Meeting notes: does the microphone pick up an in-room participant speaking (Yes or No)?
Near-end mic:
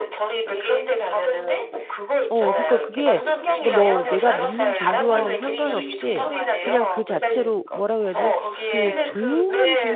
Yes